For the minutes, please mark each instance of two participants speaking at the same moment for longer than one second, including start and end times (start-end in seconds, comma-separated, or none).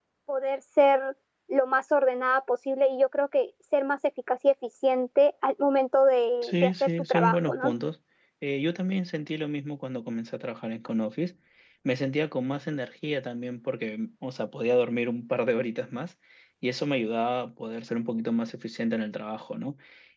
6.4-7.7